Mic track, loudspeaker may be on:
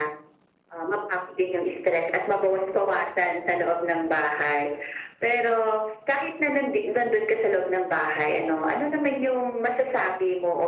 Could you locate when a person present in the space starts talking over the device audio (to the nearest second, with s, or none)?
none